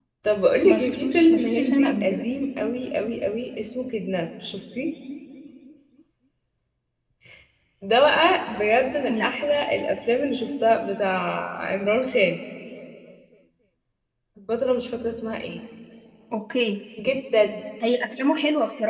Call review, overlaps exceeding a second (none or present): present